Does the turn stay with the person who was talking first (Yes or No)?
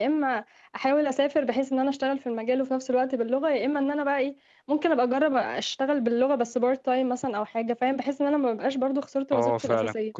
No